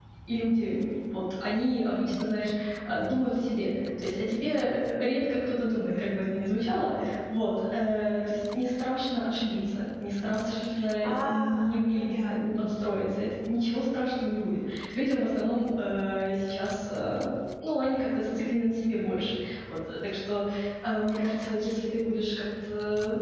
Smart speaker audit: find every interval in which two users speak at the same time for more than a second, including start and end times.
11.0-12.7

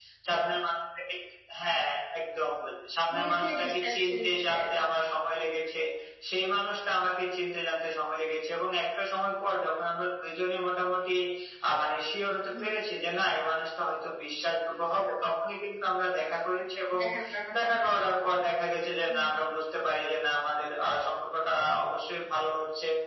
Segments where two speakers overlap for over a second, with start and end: 3.1-4.6

